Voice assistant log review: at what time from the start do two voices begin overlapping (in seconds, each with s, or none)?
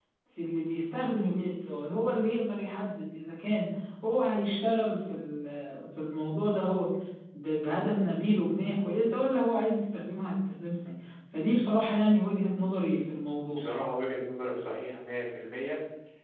none